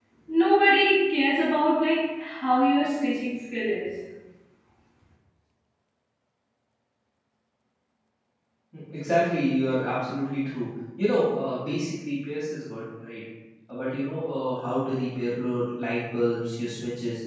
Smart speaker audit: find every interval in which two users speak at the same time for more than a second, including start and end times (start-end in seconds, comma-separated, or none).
none